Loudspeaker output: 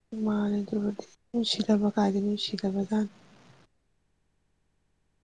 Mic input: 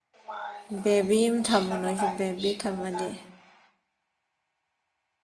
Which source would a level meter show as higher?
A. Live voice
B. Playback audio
A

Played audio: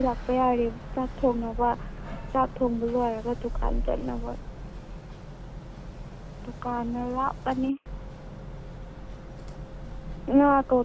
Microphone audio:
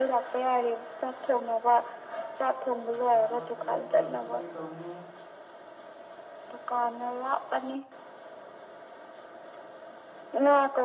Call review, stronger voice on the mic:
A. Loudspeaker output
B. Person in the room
A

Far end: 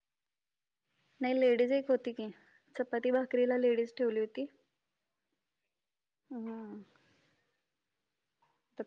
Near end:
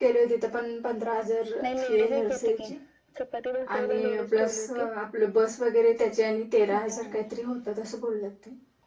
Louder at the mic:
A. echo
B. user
B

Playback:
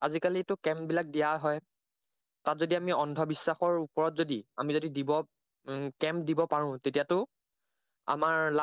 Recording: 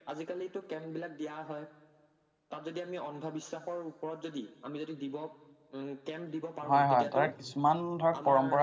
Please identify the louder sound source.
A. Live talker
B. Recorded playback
A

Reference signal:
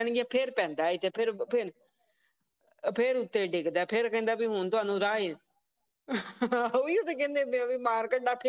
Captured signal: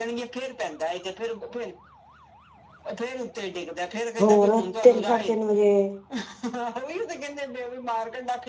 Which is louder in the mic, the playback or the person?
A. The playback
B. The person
B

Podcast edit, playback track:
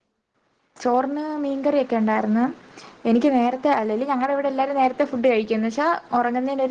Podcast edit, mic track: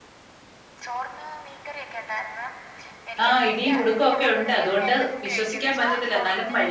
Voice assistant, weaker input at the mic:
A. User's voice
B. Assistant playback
B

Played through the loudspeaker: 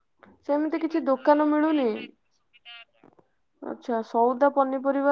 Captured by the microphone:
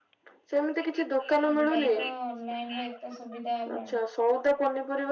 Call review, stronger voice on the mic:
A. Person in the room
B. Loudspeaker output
B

